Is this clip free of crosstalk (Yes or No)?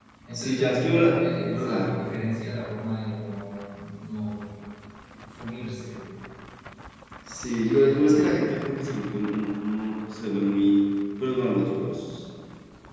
No